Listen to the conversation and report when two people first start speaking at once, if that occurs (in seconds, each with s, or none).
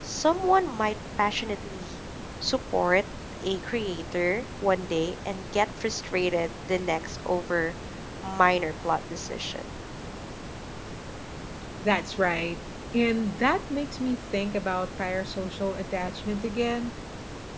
none